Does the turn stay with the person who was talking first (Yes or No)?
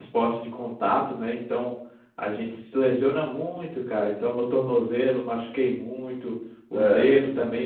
Yes